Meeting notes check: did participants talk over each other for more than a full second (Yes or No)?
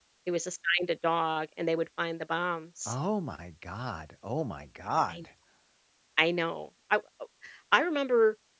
No